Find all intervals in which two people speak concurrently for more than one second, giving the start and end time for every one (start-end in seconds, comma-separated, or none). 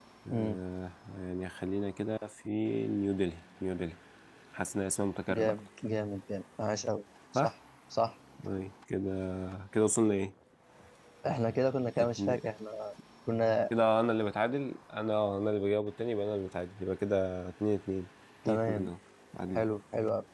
none